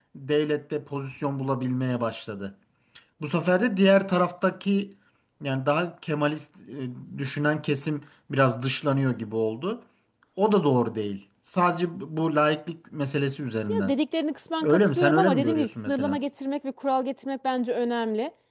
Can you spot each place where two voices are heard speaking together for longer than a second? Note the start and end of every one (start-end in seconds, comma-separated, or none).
14.6-16.2